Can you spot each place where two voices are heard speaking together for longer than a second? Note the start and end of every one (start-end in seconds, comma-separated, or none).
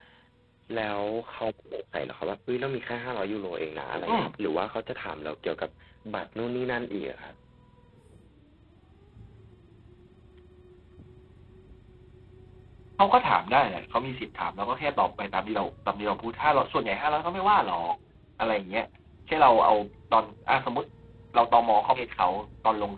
none